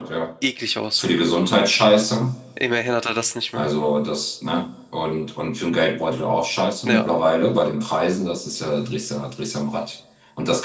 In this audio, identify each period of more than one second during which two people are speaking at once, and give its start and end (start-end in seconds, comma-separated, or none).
none